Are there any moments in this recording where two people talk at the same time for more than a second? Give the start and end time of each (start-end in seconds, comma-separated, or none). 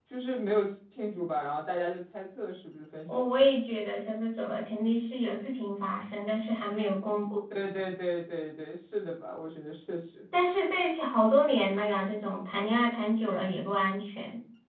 none